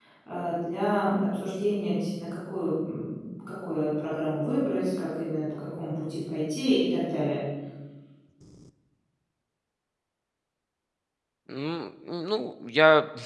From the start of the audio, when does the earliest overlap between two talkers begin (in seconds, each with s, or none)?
none